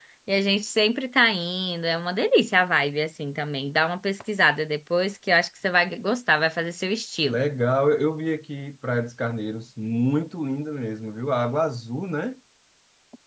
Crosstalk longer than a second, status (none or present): none